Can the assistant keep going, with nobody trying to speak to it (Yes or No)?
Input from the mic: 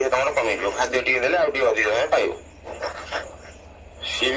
Yes